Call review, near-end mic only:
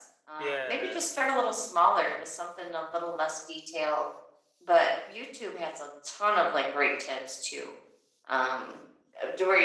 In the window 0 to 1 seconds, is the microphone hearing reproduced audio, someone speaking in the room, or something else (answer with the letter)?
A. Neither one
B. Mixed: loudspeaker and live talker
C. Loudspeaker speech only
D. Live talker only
B